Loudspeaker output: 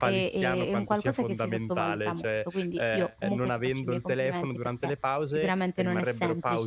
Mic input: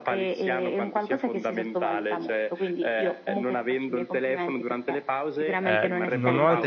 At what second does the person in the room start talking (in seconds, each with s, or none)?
5.6 s